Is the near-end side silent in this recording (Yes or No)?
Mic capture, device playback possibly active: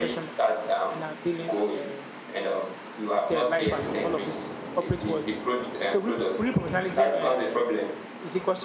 No